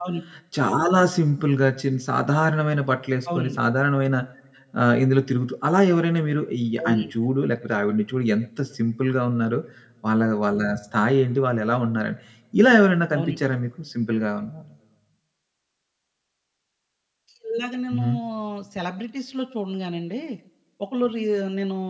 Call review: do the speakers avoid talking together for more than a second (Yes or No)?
Yes